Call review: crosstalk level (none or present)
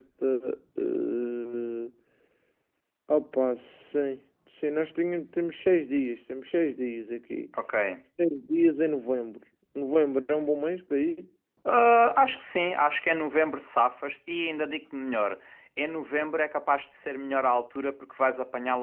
none